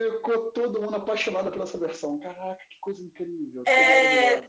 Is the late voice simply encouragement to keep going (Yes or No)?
No